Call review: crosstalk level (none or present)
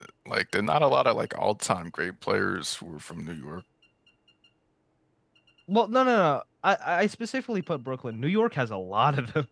none